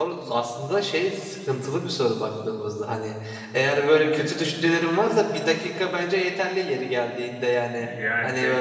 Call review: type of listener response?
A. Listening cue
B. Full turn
B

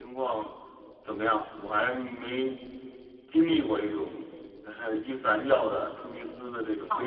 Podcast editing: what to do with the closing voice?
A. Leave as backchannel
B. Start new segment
B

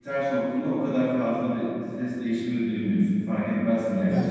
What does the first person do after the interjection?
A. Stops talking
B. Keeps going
A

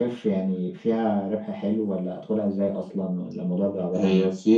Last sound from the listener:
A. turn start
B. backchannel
A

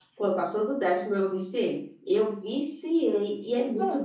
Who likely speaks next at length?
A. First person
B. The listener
A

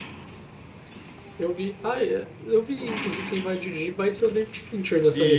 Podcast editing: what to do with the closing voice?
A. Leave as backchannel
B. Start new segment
B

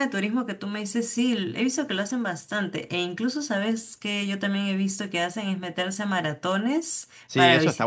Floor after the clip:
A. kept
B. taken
B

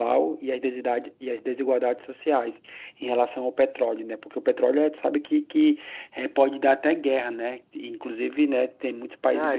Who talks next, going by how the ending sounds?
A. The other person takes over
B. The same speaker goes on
A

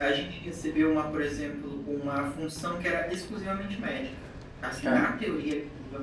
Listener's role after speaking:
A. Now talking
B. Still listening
B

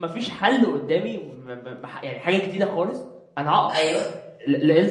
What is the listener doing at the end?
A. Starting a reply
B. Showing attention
B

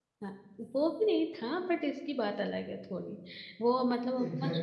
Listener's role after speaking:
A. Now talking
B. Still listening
B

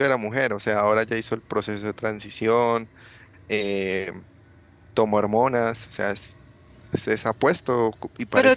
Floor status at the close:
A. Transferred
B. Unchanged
B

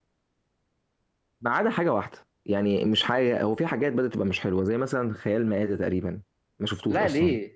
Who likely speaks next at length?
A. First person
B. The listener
B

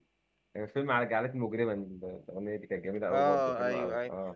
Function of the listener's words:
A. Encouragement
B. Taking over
B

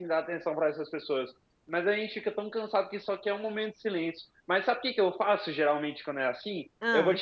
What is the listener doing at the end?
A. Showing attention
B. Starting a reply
A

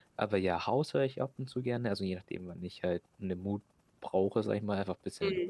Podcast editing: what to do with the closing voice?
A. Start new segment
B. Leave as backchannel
B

